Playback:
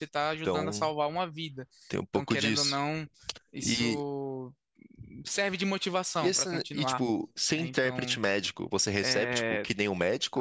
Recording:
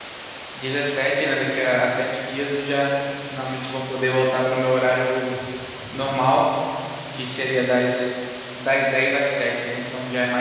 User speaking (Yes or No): Yes